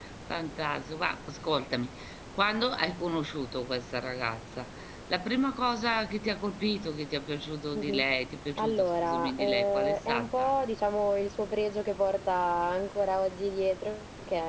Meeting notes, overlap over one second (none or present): present